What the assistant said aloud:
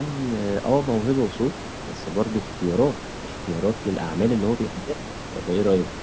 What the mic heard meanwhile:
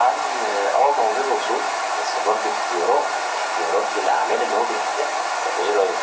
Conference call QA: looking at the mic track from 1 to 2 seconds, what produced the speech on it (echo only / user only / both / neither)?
echo only